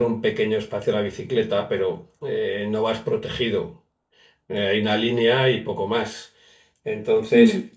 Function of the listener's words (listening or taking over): listening